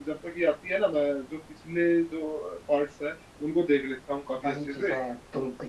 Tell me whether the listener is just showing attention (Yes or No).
No